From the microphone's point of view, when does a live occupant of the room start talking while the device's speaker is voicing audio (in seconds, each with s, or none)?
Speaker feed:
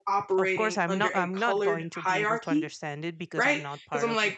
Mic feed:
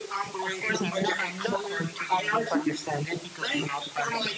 none